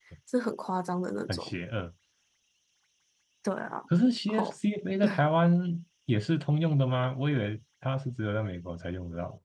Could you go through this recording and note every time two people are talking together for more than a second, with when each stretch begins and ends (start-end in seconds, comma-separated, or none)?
none